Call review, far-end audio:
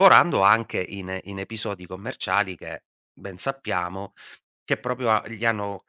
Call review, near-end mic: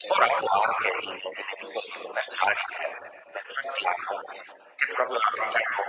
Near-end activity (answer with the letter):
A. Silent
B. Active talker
A